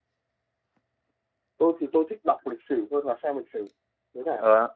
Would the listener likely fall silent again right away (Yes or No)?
No